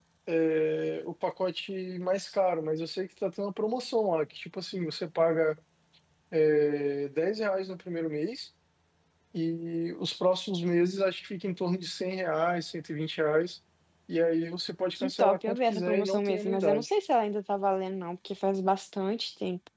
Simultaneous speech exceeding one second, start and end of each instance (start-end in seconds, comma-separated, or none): 14.9-16.9